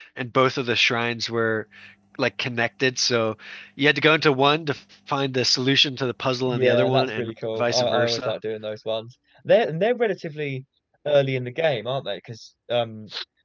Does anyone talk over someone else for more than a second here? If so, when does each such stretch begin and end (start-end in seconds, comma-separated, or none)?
6.5-8.3